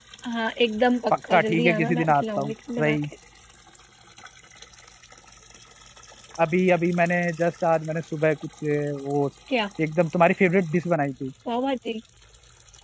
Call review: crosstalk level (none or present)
present